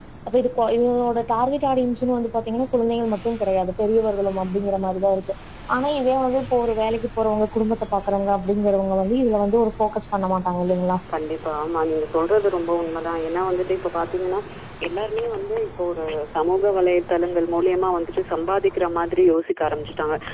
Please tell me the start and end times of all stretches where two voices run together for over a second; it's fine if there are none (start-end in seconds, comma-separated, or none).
none